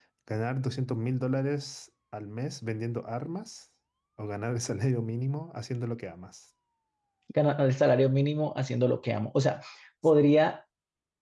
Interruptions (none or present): none